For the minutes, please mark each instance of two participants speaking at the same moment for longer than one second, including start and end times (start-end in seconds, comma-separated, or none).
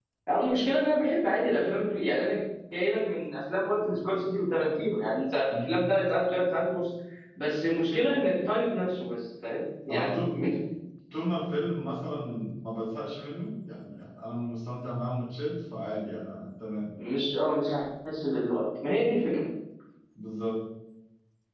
none